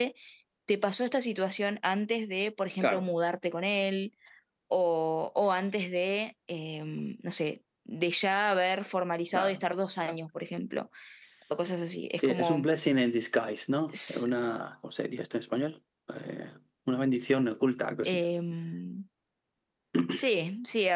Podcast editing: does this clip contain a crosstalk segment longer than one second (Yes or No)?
No